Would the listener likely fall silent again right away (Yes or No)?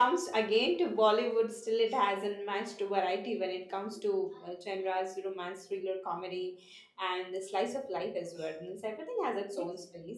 No